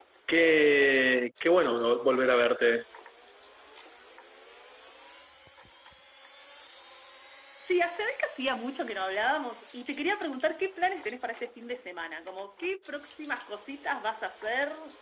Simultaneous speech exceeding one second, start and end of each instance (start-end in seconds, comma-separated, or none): none